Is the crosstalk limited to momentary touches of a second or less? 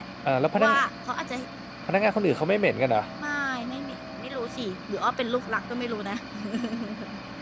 Yes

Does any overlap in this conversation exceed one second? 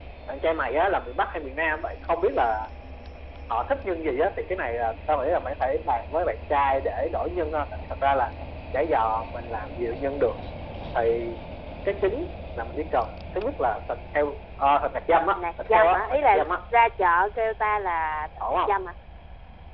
Yes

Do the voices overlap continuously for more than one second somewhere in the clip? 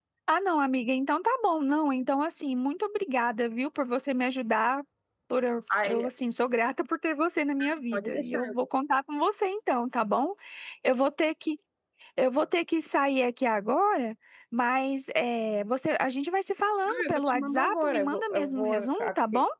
Yes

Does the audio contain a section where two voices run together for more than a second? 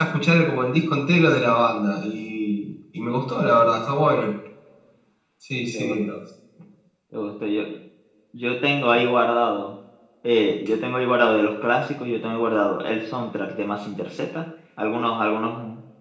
No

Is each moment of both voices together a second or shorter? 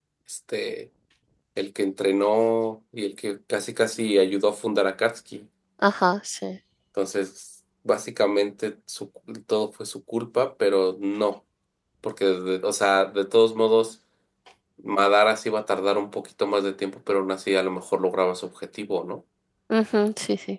Yes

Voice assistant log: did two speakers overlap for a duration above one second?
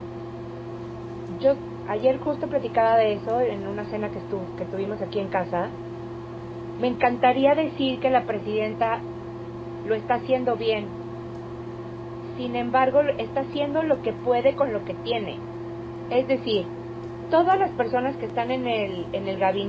No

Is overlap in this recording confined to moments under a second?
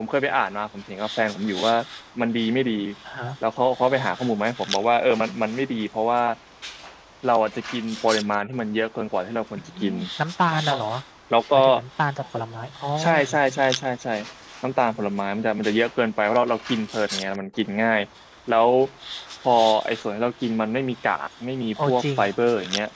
Yes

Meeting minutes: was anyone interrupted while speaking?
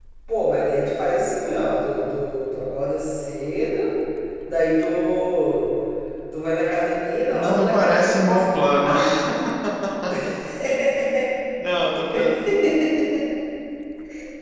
Yes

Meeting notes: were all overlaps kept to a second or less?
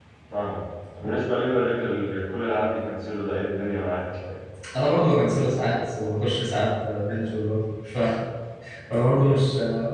Yes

